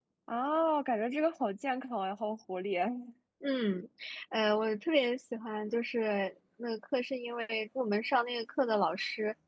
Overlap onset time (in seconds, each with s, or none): none